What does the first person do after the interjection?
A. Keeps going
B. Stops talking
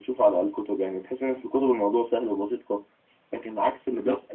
B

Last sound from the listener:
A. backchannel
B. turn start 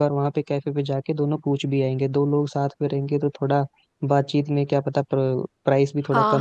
B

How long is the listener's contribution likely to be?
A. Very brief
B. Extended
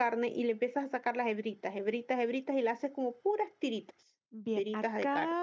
B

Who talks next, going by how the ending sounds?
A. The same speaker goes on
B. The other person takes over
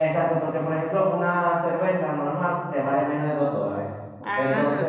A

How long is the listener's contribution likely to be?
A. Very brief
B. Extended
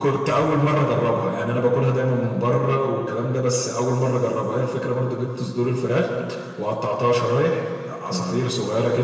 A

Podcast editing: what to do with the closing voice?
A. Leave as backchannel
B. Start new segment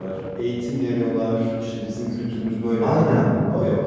B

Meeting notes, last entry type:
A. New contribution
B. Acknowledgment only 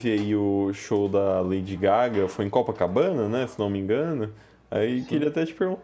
B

